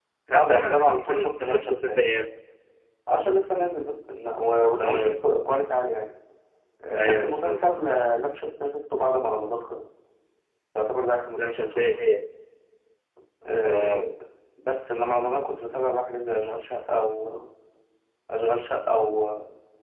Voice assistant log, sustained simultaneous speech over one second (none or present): present